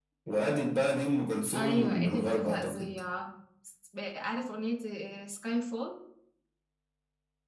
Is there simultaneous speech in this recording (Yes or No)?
Yes